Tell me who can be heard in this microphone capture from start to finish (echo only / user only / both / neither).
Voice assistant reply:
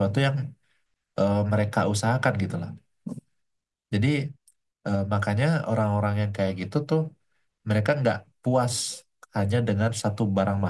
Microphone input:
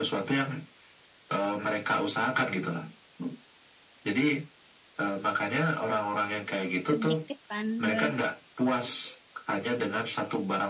both